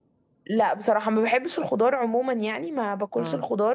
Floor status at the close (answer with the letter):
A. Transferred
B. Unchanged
B